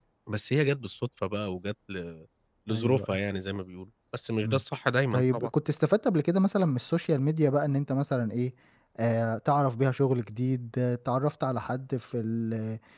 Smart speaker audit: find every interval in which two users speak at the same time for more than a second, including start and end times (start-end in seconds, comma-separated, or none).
none